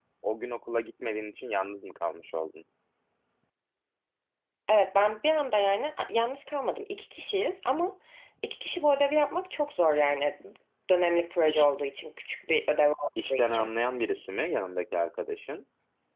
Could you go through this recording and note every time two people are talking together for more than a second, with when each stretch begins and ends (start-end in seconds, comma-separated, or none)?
none